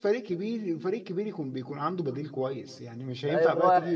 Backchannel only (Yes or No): No